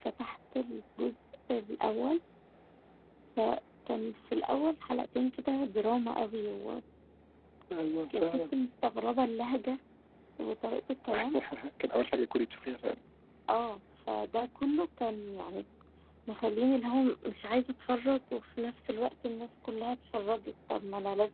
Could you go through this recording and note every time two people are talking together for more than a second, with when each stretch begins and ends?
none

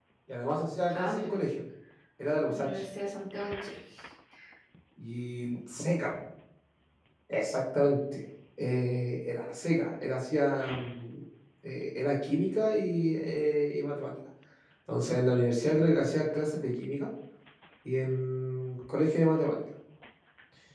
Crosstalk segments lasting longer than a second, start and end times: none

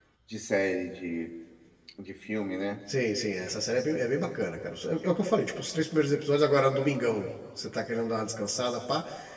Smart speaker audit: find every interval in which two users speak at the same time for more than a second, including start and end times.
none

